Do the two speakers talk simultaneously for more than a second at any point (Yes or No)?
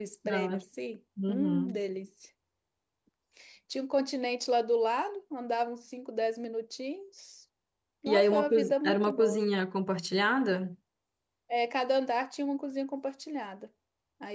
Yes